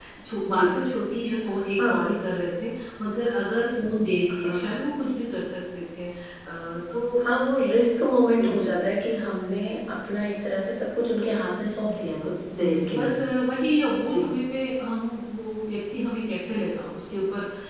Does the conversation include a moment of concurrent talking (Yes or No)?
Yes